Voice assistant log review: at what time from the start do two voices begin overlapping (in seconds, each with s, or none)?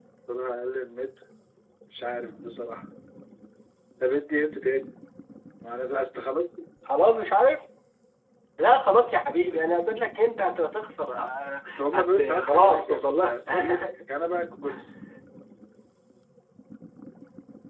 11.6 s